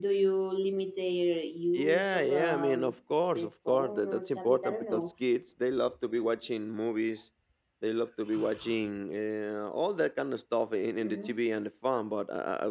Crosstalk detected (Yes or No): Yes